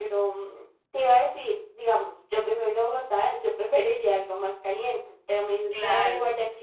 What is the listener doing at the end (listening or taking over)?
listening